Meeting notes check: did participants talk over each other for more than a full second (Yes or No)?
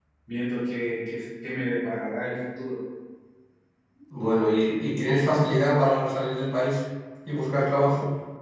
No